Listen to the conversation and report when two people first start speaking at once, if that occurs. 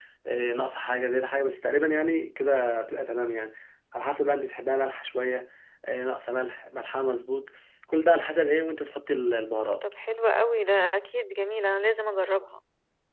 none

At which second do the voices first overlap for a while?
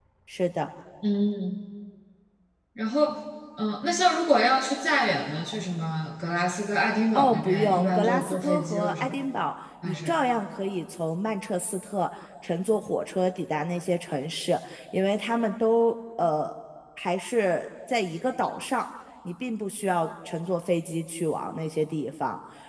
7.1 s

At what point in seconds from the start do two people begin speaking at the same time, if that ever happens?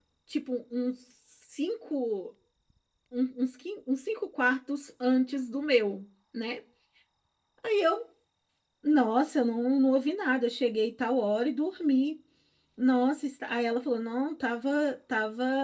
none

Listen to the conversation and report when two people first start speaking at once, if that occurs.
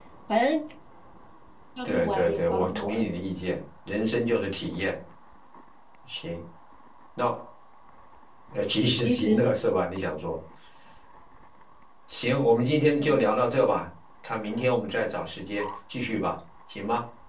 1.8 s

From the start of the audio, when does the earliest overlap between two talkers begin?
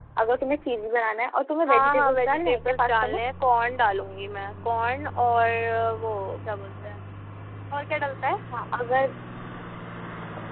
1.6 s

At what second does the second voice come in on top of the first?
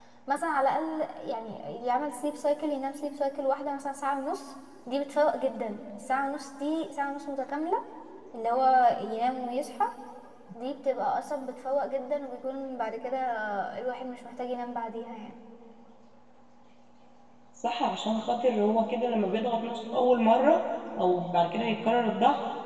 none

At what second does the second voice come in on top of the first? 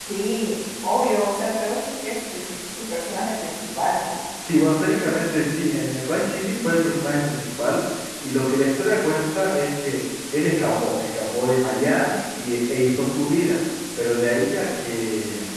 none

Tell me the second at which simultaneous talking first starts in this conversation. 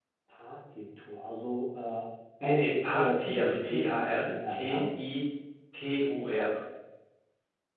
2.4 s

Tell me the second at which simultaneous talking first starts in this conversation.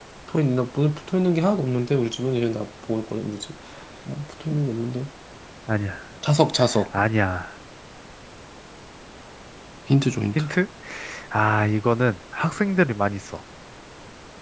none

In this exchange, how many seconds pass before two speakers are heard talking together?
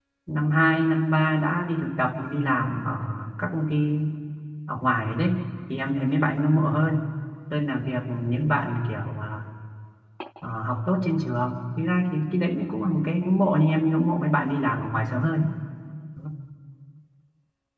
none

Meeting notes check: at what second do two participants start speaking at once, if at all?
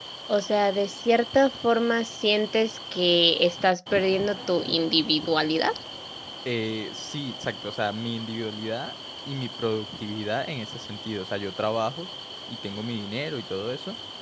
none

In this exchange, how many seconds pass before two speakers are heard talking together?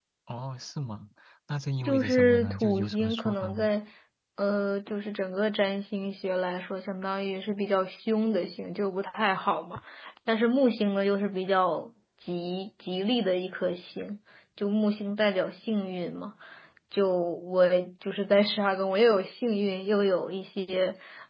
1.9 s

